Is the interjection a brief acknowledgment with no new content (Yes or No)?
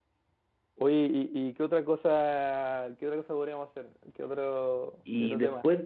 No